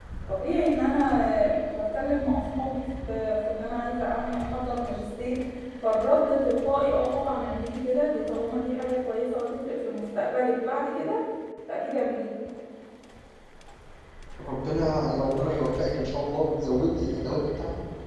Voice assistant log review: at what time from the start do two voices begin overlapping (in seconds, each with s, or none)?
none